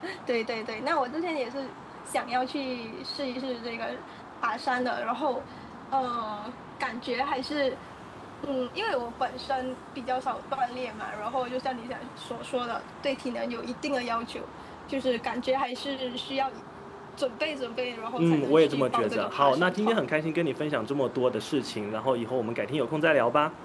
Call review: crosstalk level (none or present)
present